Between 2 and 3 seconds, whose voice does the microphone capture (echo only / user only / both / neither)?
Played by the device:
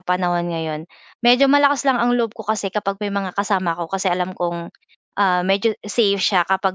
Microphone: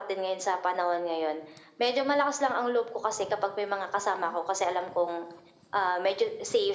echo only